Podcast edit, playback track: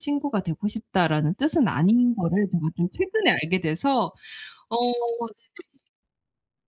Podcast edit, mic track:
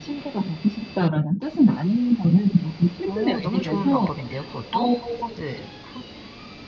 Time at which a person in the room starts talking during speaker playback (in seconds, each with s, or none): 3.1 s